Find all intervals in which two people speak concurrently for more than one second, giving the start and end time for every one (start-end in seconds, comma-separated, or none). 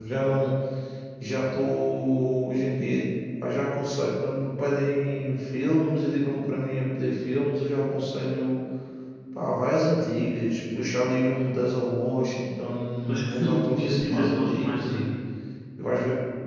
13.1-15.0